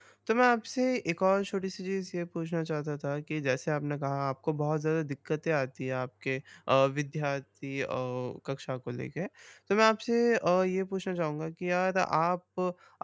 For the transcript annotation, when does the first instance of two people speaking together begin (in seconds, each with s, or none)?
none